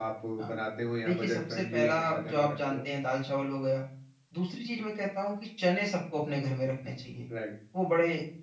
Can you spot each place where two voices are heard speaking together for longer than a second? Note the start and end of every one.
1.0-2.9

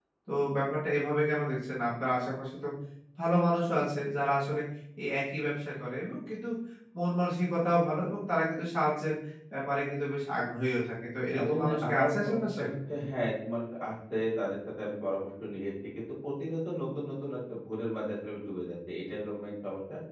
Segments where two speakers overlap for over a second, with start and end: 11.4-12.6

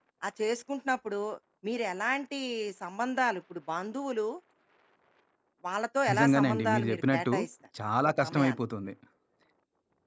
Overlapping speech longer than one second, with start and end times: 6.1-7.3

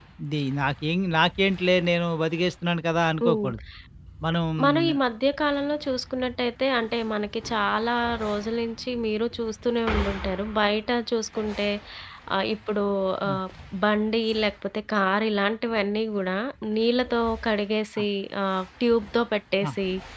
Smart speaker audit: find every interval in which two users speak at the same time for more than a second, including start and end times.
none

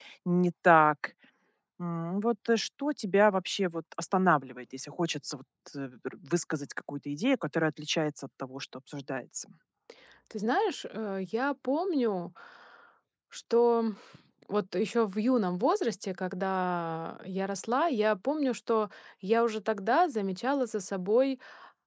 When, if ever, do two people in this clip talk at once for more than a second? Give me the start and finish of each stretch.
none

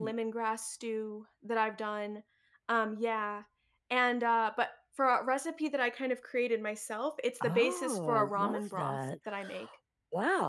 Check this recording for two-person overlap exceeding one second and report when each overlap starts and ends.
7.4-9.0

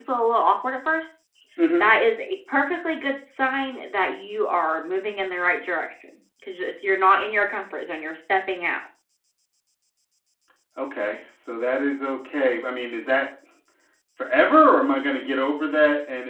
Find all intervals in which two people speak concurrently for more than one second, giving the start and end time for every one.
none

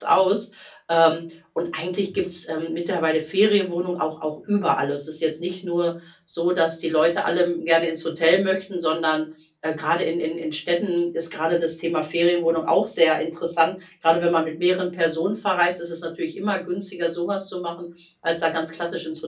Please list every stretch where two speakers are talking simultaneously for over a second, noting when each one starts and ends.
none

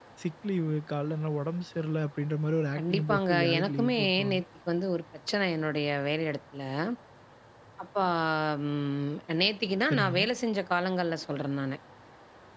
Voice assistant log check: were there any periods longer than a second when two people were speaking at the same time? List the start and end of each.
2.8-4.4

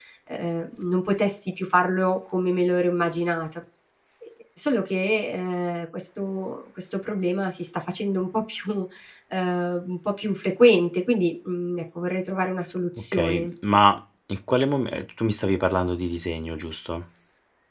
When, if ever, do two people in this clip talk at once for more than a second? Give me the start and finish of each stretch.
none

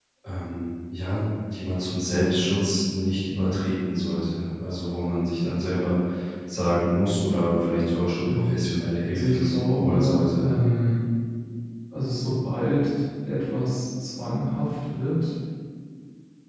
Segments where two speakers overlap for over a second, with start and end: 9.1-10.5

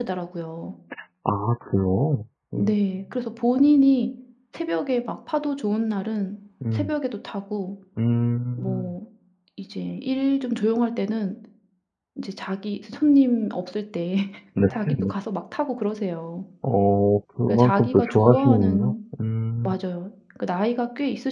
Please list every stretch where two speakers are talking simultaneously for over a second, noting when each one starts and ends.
17.5-18.9

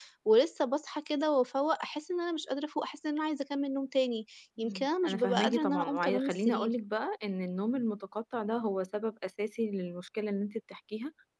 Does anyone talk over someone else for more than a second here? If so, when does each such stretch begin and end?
4.6-6.7

